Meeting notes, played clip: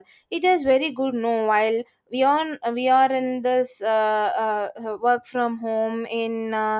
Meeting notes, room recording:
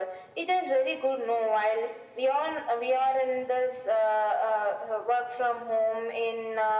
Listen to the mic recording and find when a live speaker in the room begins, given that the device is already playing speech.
none

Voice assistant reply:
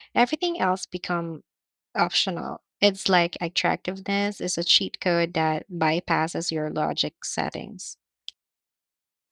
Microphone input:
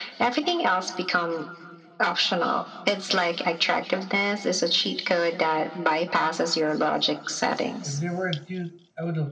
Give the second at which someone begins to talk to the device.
7.8 s

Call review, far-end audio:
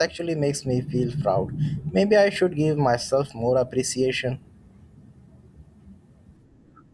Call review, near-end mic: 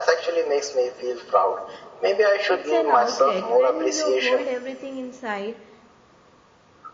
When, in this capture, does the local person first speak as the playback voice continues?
2.5 s

